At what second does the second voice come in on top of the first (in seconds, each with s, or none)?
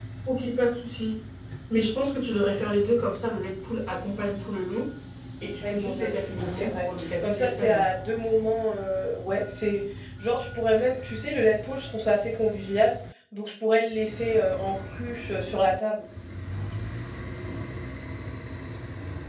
5.6 s